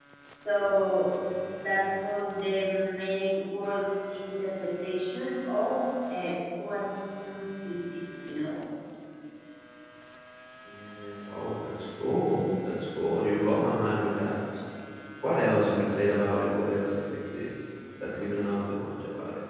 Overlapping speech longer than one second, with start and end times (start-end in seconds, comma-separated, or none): none